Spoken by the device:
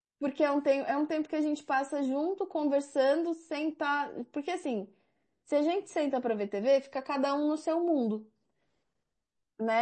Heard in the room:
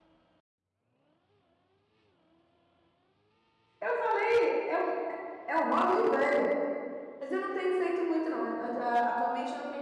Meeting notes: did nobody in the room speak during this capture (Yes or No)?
No